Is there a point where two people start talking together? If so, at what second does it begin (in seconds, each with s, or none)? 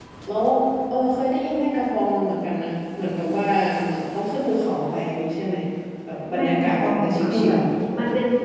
6.3 s